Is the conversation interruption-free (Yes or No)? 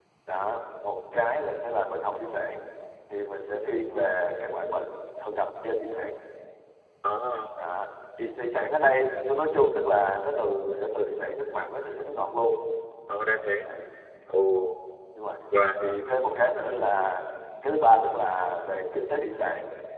Yes